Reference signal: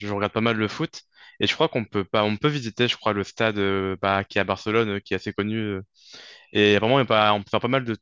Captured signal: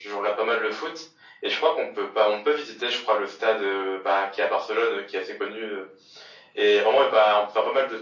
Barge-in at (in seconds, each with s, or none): none